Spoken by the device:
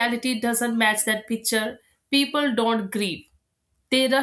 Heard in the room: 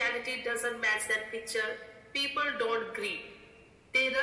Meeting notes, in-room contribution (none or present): none